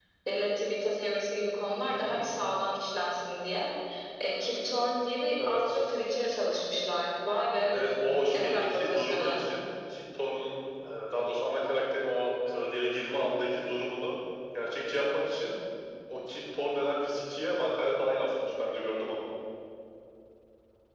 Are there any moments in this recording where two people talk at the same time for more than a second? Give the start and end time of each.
7.7-9.4

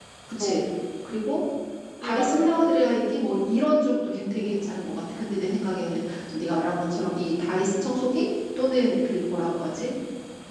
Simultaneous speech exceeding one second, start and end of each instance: none

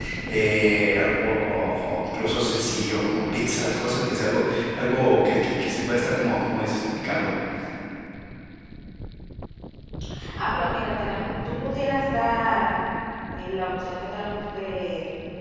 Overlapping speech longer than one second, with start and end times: none

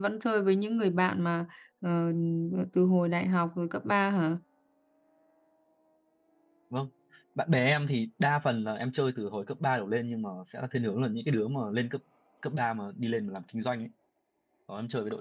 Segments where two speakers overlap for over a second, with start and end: none

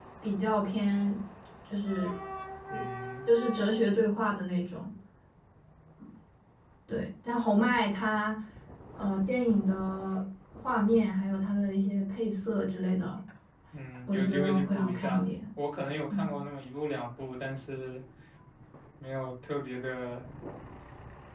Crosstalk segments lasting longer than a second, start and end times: 14.1-15.3

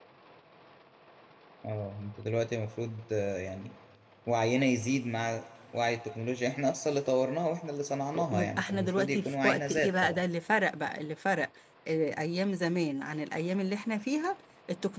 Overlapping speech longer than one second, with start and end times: 8.3-10.2

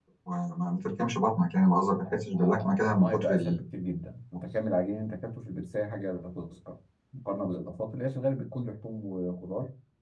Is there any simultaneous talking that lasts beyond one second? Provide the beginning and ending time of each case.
1.9-3.6

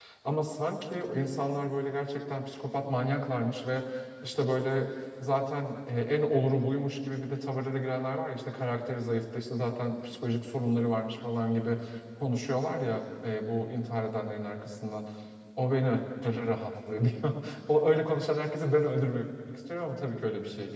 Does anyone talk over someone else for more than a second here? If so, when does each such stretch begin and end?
none

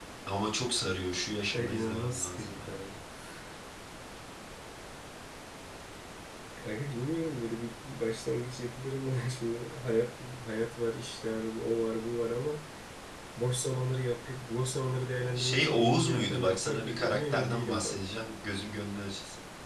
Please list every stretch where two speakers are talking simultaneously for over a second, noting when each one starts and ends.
1.5-2.9, 15.3-18.0

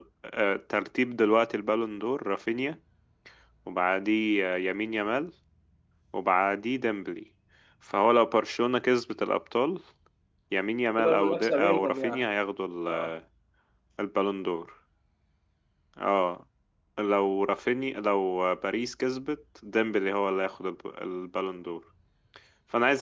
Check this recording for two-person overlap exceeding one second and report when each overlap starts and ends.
11.0-12.2

